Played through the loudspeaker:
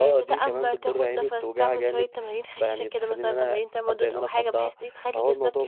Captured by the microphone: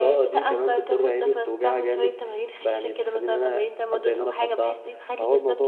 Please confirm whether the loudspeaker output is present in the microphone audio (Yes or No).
Yes